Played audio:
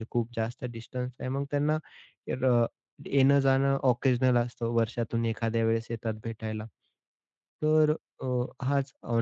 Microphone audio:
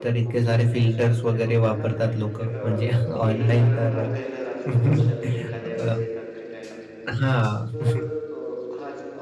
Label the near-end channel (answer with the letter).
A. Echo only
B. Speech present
B